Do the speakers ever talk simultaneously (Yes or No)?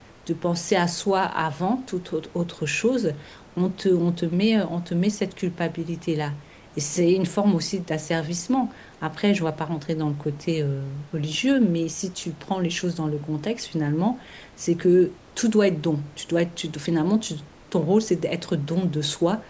No